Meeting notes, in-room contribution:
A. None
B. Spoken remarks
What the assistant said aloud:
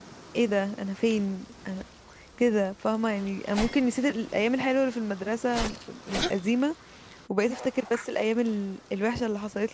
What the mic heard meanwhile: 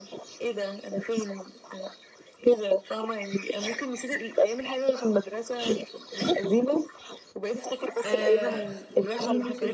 B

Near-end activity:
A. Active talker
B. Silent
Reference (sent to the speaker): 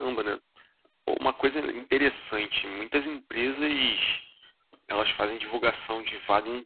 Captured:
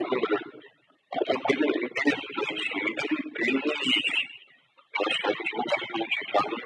B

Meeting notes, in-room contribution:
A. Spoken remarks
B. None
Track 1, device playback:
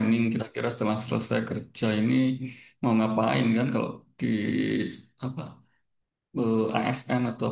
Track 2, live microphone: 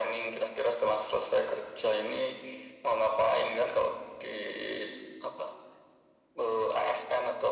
B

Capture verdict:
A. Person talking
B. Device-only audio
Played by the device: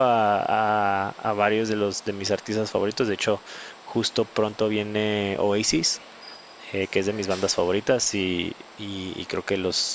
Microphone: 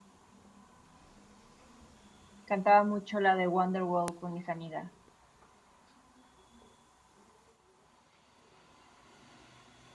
A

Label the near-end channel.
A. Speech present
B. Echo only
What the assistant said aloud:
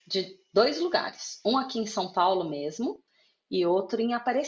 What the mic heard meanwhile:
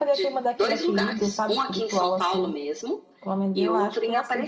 A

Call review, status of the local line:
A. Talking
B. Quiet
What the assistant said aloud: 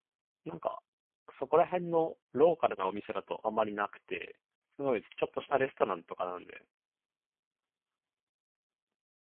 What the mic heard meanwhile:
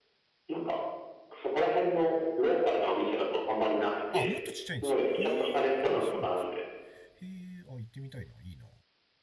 A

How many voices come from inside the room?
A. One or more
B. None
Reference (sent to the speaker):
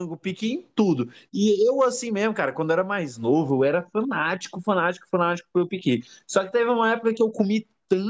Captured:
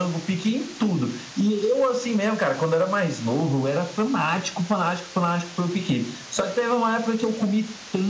B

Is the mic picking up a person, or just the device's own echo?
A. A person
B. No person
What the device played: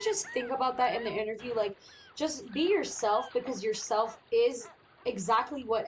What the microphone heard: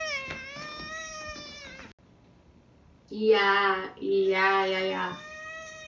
A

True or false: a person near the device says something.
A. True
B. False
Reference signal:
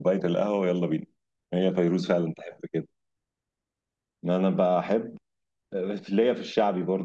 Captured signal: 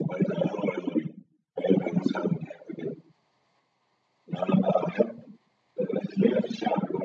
B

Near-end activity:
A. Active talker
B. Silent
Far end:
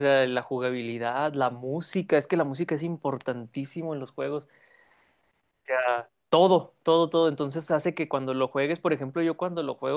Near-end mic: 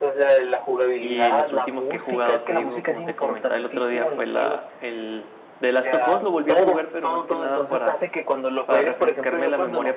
A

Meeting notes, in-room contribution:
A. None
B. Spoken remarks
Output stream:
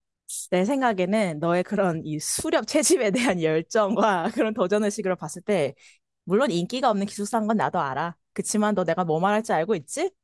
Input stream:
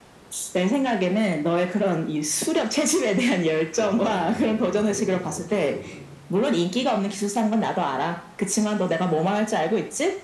B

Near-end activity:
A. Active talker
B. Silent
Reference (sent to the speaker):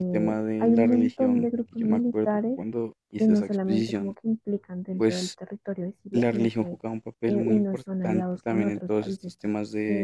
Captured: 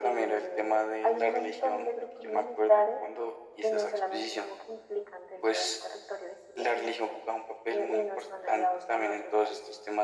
B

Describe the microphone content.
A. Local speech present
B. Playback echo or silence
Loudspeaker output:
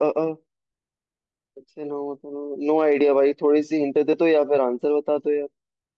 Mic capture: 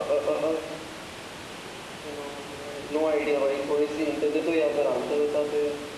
B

